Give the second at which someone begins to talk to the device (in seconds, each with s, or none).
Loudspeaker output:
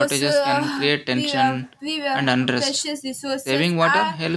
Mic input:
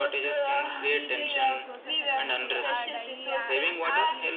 0.9 s